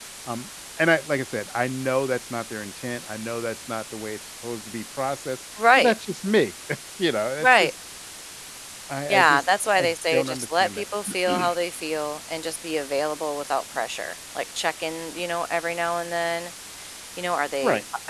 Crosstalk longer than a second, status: present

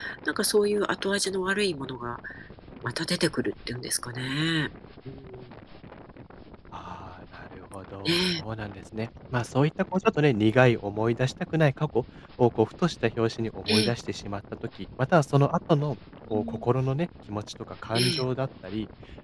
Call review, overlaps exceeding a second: none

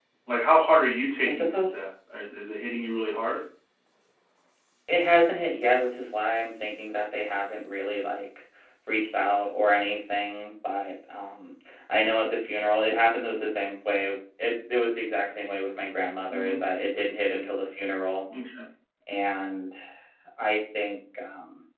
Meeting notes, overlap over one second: none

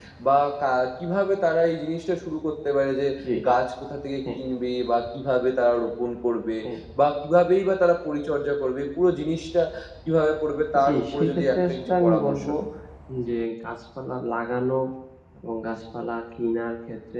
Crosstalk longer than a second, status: present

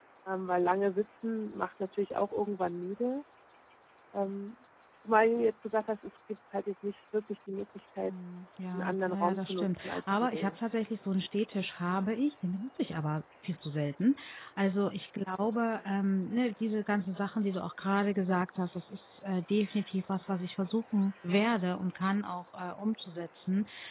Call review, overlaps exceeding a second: present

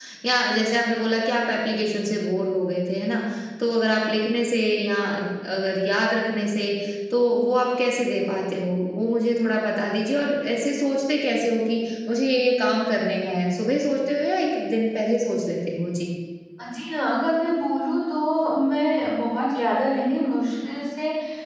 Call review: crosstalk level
none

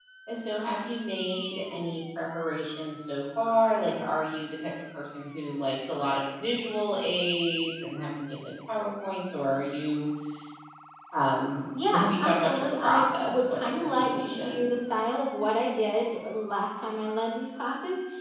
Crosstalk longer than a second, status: present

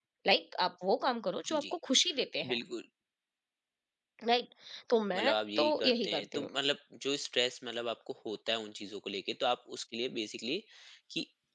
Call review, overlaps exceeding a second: present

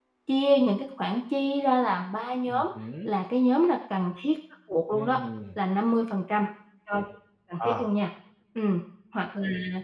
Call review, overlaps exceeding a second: none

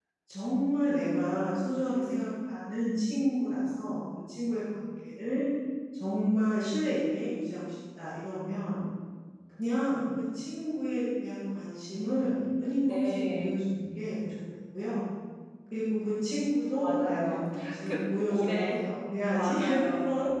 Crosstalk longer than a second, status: present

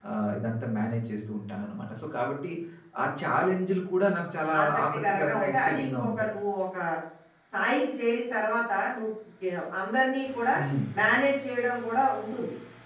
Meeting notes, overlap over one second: present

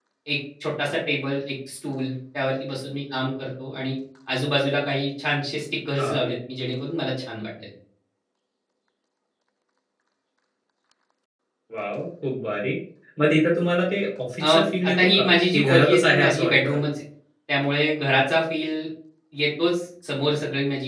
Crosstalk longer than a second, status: present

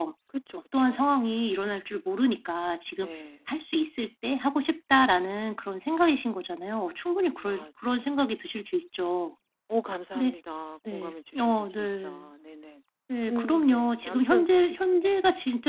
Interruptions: present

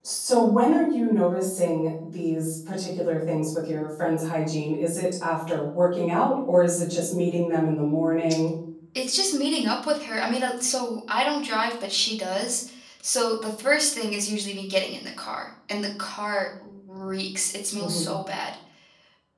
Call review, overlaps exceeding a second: none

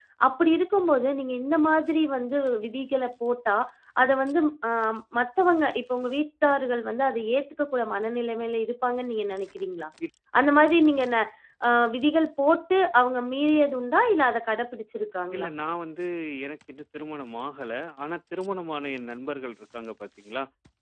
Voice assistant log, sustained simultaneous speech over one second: none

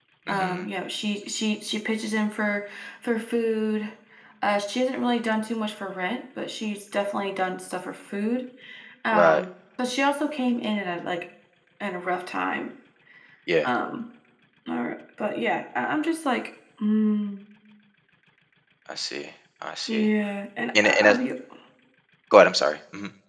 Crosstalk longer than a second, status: none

